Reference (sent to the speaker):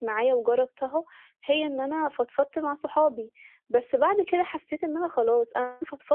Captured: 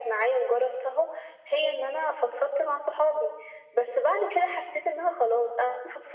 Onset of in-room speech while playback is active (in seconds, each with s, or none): none